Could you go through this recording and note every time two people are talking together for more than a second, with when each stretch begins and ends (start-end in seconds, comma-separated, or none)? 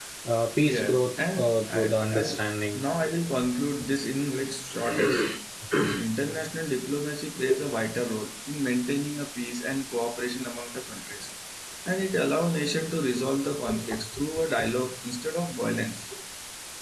0.6-2.4